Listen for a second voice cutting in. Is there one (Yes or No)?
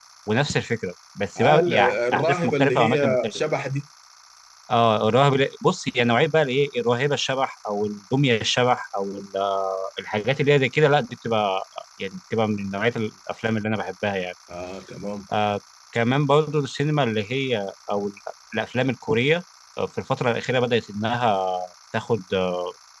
Yes